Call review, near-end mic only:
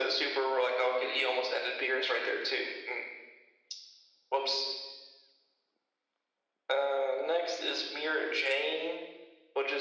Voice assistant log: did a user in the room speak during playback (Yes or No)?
No